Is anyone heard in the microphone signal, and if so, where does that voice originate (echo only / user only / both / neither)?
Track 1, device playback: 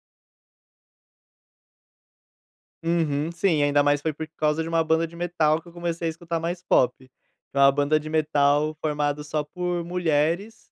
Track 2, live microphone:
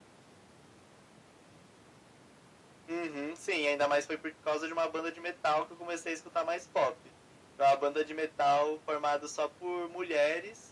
echo only